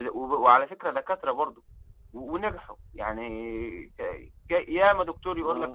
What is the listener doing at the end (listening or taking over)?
listening